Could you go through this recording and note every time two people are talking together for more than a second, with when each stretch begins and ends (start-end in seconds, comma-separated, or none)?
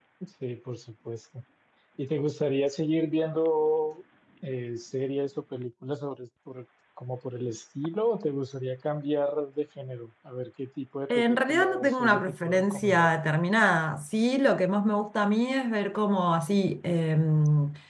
11.1-13.1